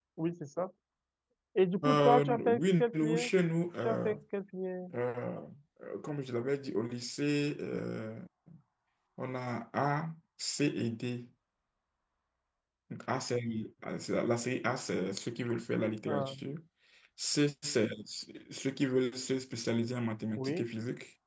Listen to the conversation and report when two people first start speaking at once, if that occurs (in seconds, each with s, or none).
1.8 s